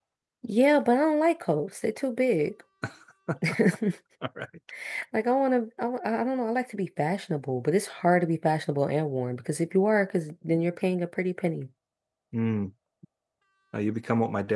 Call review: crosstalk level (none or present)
none